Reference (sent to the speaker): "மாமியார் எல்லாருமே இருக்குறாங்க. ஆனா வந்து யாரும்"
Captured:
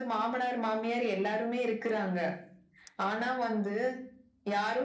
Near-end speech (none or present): none